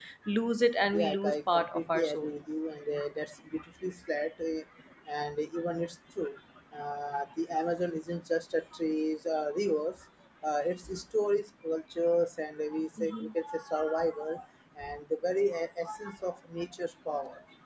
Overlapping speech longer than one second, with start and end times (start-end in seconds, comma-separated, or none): 0.9-2.3